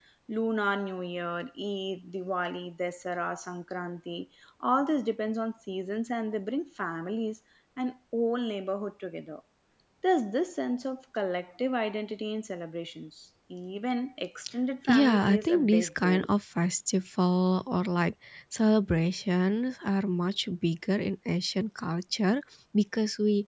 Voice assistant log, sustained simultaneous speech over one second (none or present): present